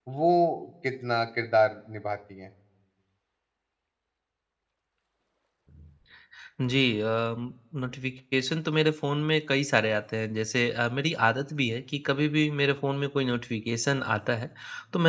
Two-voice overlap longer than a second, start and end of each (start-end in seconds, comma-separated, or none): none